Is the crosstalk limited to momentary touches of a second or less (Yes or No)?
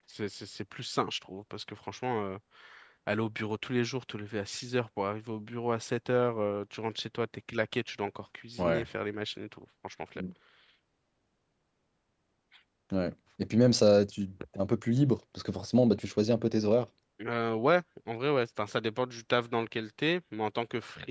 Yes